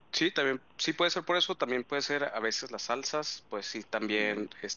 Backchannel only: Yes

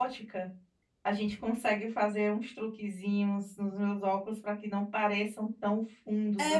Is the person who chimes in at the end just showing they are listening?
No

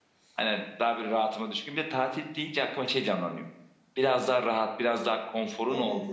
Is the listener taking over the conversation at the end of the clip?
No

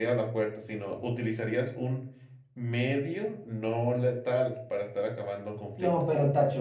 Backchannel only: No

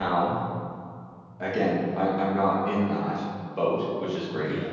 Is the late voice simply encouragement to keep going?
Yes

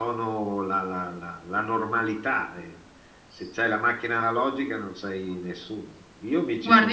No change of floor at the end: No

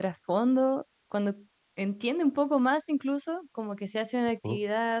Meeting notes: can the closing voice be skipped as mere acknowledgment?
Yes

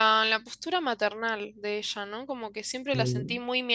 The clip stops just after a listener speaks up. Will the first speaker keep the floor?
Yes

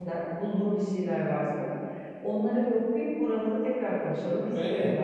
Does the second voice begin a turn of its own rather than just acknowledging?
Yes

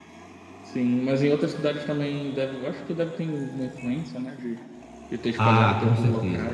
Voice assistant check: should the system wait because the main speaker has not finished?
No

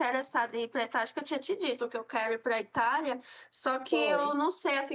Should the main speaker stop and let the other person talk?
No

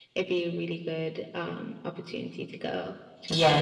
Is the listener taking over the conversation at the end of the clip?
Yes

